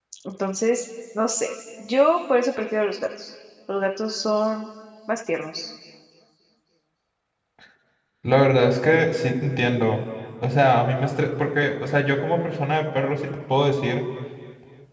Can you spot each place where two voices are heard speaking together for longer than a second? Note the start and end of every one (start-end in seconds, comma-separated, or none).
none